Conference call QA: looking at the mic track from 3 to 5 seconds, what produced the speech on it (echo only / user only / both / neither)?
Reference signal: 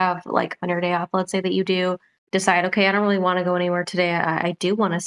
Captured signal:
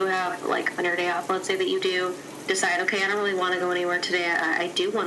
echo only